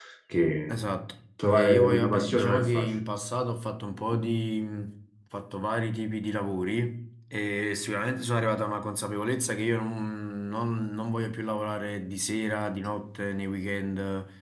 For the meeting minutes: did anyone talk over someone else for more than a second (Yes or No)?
Yes